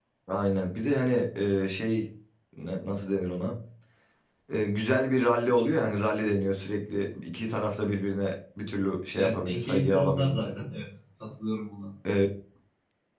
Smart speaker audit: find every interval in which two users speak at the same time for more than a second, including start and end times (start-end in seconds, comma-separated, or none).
9.1-10.5